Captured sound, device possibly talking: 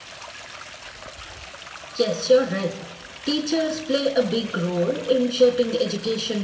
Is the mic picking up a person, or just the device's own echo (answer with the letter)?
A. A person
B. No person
B